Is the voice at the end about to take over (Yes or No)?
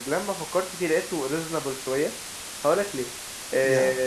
No